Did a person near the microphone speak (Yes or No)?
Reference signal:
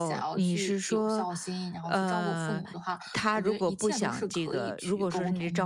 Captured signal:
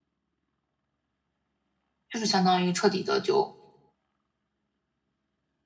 Yes